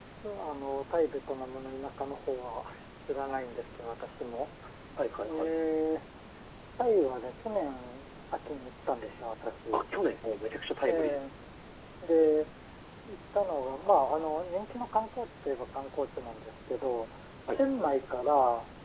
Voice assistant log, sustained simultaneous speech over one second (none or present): none